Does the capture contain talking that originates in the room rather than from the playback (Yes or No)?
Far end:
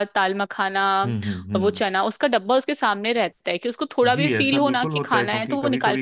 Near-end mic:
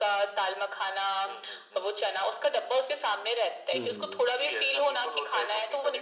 Yes